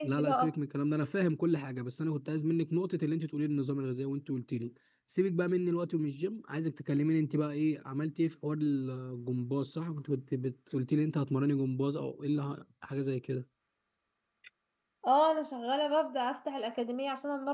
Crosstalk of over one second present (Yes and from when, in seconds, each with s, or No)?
No